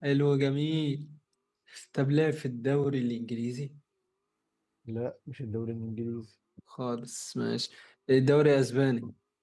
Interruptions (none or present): none